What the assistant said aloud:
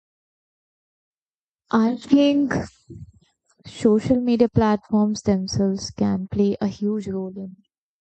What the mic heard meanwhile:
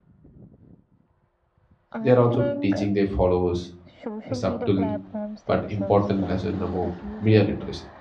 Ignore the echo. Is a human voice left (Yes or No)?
Yes